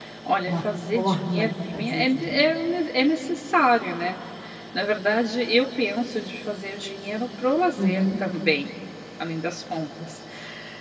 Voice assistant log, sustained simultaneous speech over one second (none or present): present